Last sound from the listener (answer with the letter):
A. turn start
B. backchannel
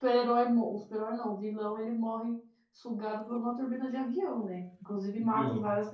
B